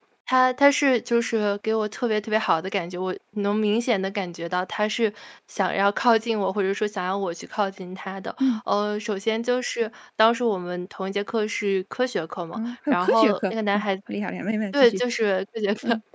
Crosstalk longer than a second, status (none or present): present